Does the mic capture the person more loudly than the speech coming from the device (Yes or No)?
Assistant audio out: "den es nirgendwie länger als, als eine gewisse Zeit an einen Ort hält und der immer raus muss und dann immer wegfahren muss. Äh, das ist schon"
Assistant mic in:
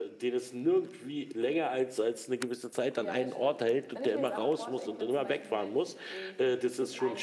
No